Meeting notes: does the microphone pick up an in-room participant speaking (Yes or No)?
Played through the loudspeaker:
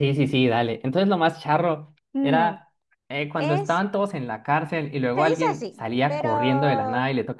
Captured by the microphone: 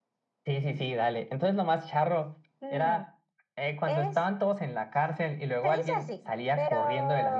No